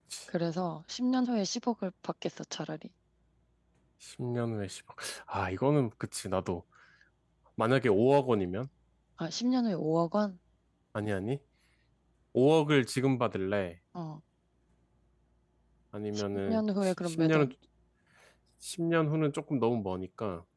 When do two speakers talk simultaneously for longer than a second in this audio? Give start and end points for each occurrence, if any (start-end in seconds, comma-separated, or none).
16.1-17.4